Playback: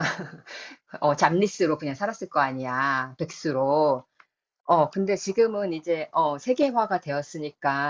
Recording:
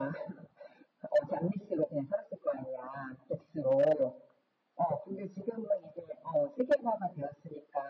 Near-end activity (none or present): none